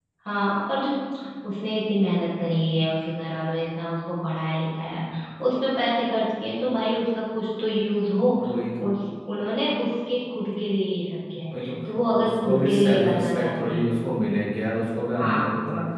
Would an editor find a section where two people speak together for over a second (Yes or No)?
Yes